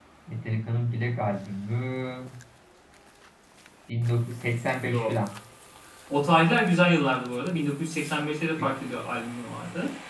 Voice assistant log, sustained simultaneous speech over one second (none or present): none